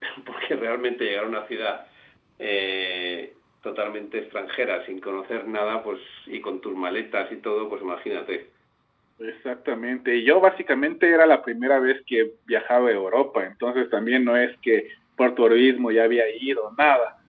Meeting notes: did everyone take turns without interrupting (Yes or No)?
Yes